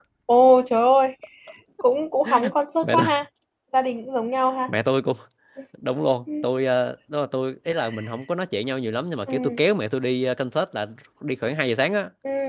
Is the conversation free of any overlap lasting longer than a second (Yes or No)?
Yes